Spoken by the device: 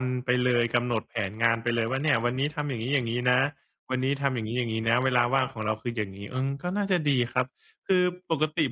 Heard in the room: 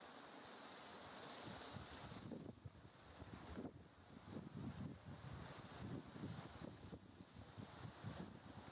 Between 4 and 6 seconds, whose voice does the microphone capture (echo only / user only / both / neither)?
neither